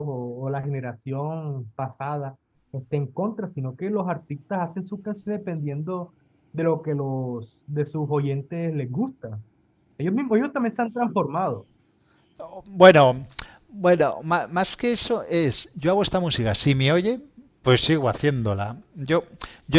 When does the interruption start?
none

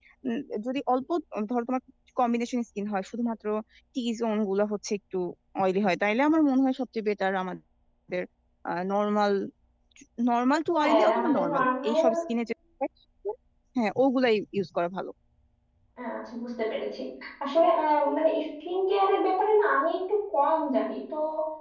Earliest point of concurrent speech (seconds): 10.8 s

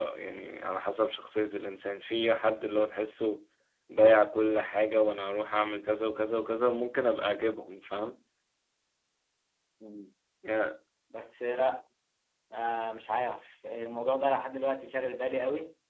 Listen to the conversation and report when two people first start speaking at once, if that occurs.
none

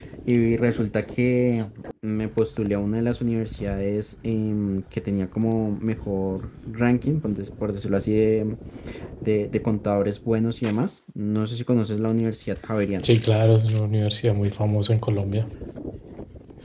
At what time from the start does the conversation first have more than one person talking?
none

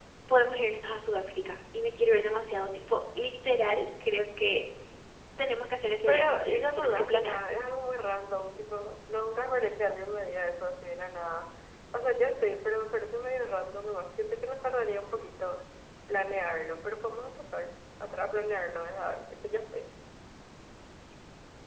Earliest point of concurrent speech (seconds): 6.1 s

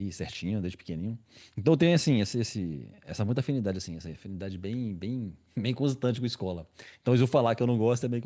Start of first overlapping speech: none

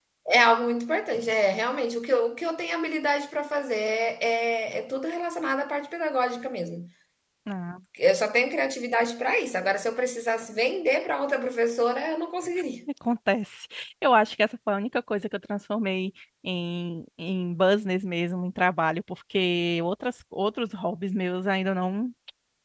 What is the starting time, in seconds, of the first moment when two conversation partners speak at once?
none

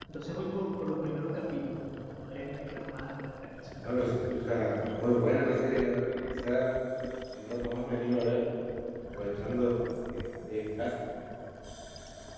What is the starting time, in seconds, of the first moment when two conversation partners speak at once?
none

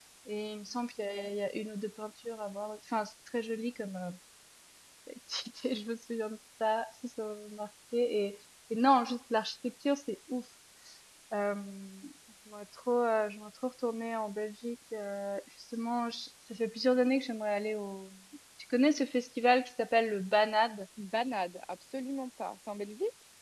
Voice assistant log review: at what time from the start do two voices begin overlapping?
none

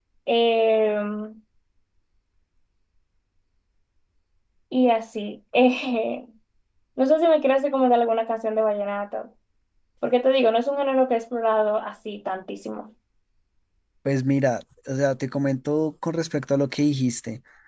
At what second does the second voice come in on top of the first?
none

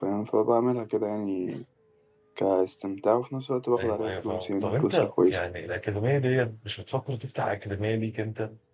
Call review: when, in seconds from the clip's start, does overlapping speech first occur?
3.8 s

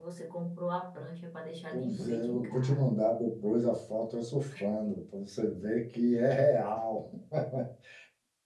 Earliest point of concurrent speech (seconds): 1.7 s

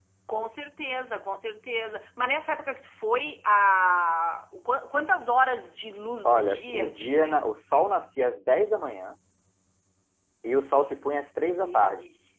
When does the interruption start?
6.2 s

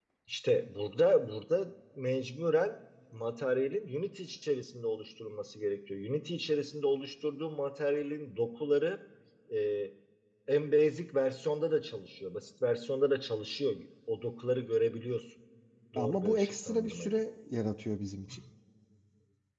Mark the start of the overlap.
16.0 s

